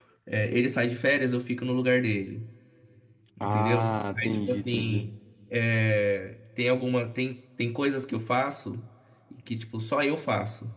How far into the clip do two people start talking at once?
3.4 s

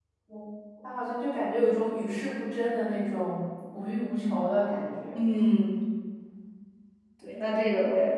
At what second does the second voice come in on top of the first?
none

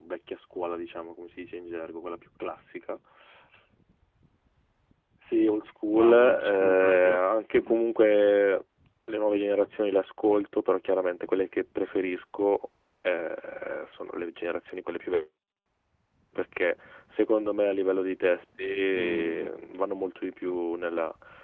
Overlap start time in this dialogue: 5.9 s

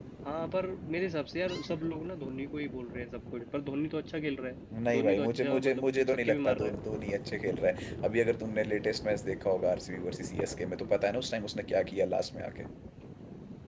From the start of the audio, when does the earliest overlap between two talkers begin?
4.7 s

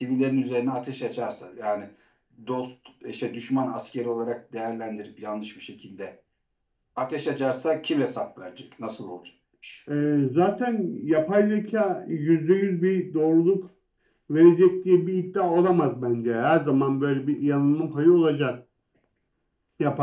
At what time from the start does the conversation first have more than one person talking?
none

